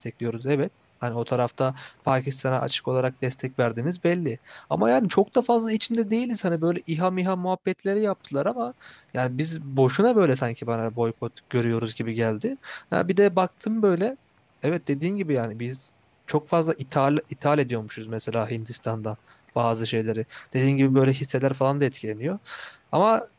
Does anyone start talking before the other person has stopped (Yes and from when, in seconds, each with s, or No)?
No